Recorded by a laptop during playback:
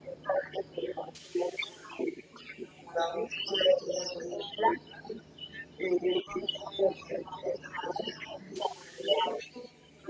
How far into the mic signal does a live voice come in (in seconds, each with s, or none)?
none